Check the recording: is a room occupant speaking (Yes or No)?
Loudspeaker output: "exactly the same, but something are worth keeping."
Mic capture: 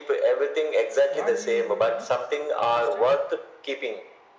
Yes